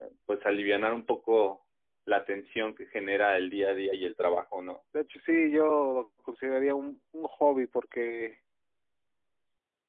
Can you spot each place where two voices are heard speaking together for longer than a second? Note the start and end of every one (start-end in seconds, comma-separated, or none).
none